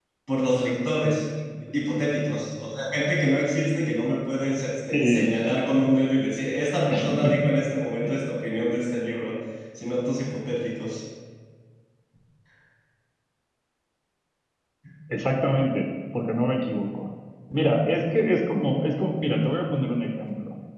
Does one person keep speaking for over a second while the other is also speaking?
No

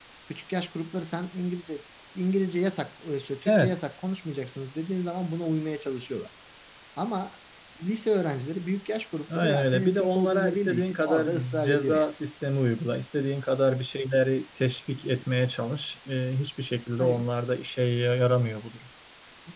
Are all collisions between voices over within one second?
No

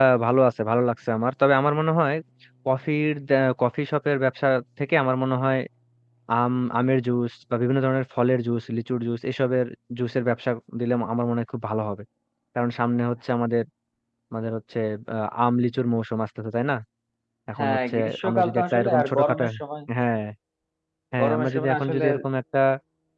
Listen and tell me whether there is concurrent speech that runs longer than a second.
Yes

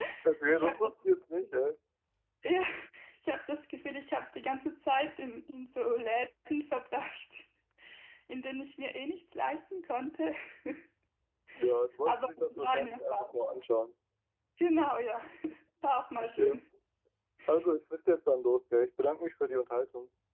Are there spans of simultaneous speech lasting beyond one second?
Yes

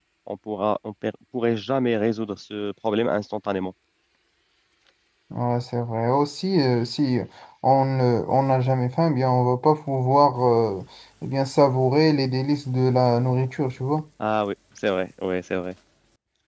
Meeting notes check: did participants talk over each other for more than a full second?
No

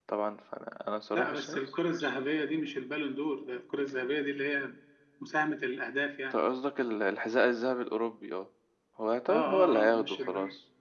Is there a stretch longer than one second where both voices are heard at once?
Yes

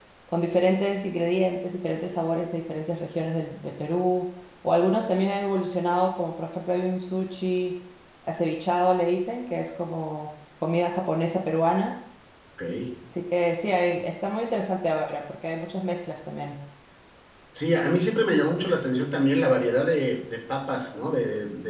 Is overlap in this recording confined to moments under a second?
Yes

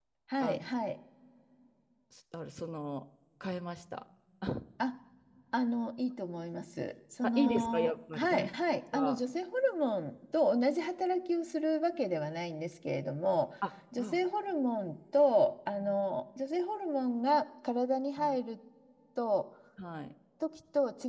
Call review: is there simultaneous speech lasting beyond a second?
Yes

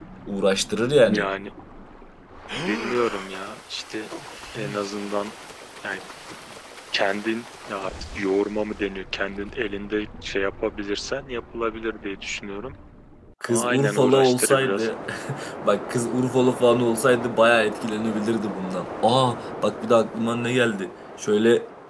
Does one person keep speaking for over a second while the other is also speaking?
Yes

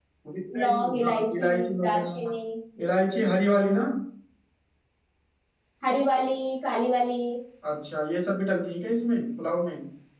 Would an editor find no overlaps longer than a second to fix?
No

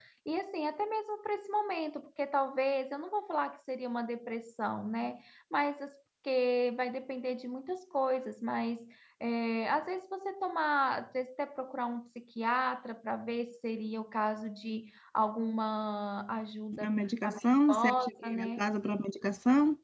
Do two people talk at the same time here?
Yes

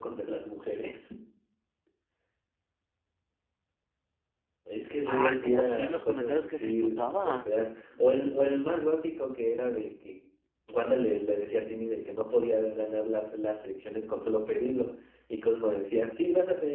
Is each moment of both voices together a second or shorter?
No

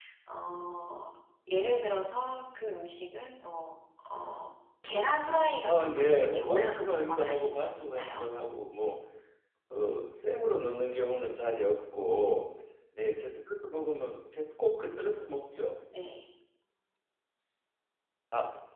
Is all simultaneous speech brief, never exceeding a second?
No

